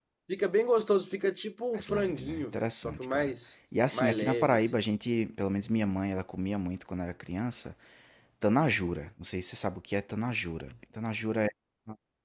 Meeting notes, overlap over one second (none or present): present